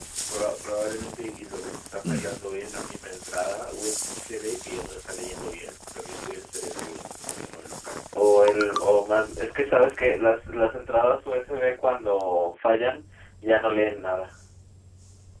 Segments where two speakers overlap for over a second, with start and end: none

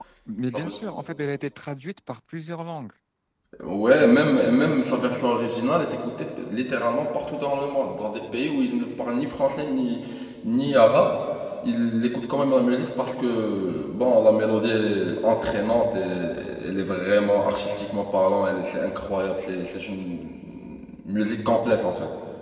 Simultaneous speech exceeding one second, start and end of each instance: none

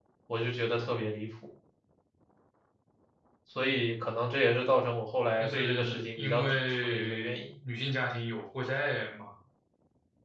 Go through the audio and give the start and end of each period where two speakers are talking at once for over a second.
5.4-7.3

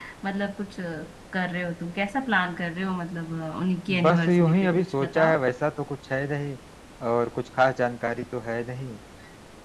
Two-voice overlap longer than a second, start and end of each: 4.0-5.4

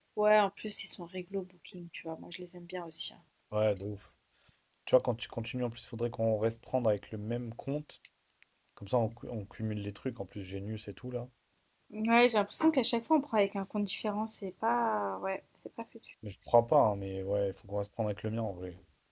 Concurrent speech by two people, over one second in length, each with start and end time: none

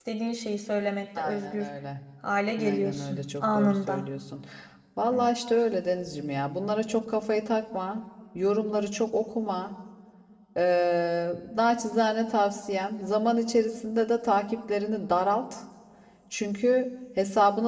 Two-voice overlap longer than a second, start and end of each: 2.6-4.0

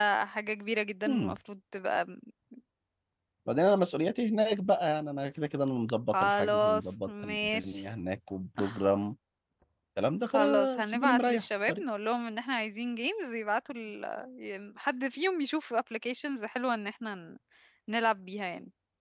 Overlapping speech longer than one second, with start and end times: 6.1-7.8, 10.3-11.8

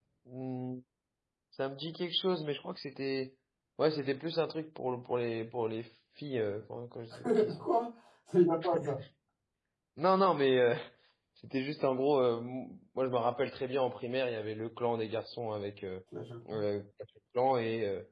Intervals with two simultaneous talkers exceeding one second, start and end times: none

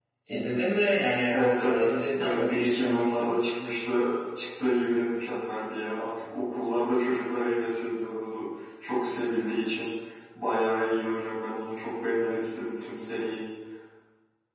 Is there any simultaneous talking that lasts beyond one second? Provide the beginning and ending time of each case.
1.3-3.4

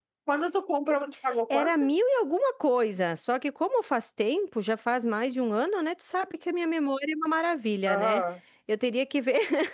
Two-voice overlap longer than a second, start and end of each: none

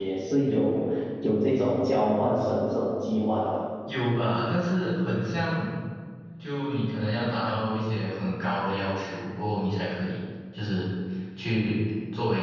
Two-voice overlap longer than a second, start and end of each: none

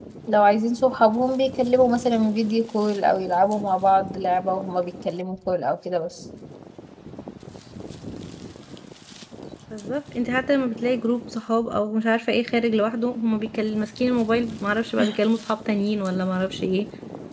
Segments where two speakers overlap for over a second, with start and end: none

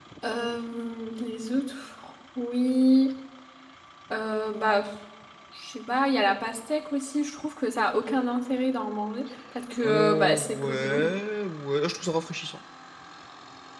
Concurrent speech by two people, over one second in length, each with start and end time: 9.8-11.0

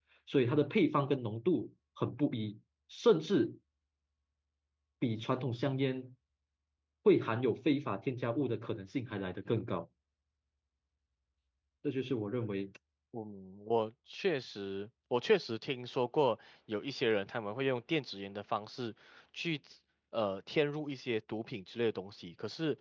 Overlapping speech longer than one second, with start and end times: none

